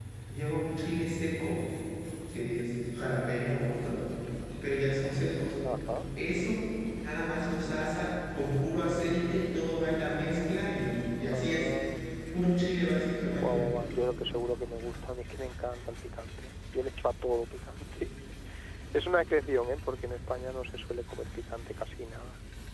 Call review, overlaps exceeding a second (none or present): none